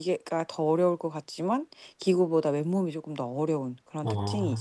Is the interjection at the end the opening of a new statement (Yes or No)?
Yes